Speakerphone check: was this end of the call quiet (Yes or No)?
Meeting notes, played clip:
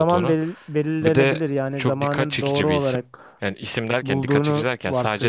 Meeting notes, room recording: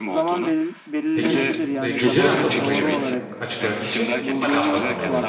No